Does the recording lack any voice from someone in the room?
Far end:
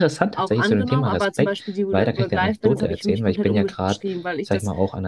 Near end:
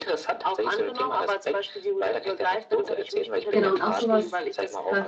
No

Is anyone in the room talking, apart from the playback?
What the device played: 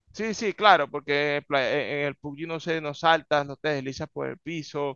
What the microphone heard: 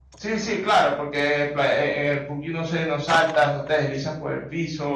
No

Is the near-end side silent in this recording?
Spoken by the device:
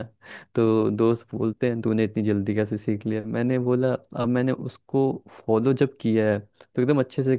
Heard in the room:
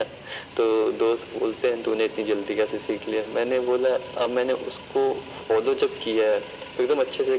Yes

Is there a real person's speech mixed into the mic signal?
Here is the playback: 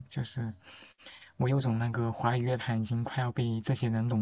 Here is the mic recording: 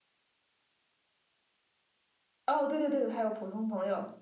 Yes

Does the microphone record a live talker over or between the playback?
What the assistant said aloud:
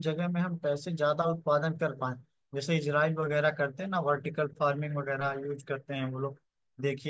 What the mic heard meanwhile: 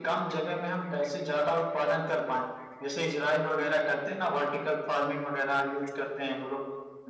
No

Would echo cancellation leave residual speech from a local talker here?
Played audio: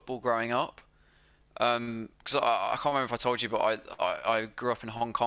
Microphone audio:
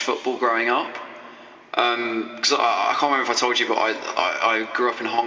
No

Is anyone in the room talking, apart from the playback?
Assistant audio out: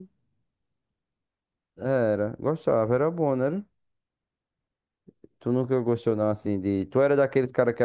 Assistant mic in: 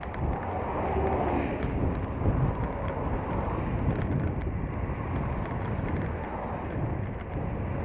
No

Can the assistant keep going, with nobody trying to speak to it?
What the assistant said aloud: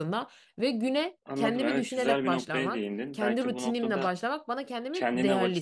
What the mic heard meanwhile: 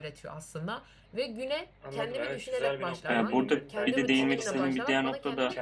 No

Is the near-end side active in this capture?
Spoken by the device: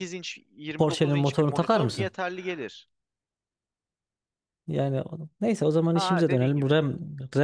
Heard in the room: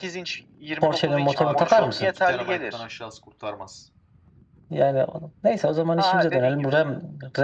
Yes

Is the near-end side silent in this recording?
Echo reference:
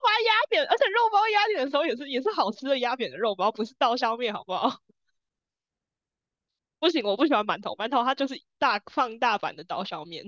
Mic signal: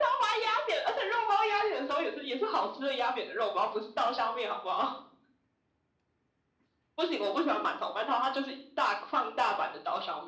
Yes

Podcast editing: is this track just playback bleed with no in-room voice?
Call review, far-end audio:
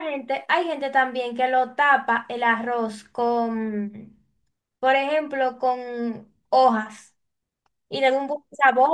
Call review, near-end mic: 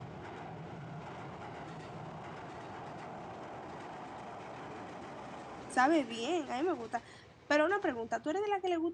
No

